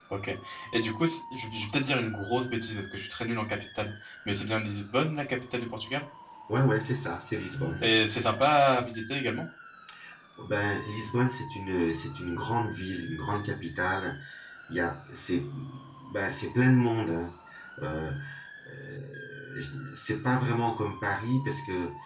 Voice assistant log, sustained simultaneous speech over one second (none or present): none